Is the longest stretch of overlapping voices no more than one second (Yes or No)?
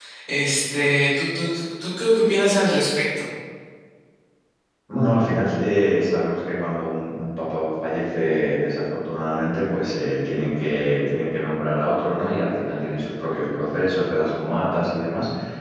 Yes